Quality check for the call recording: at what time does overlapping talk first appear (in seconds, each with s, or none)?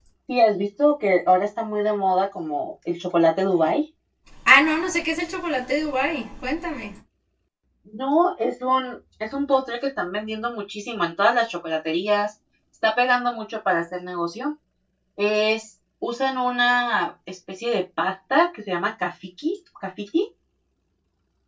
none